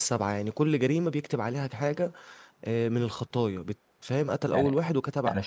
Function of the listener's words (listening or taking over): taking over